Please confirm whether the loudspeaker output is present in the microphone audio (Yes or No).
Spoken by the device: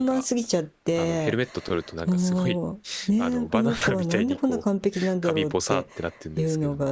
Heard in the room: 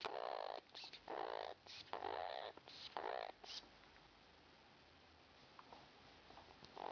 No